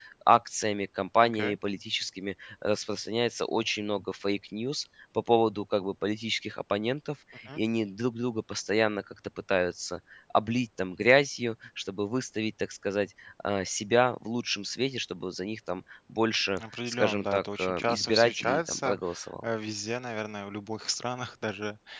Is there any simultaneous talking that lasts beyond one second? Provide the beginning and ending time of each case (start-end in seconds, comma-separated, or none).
16.6-19.0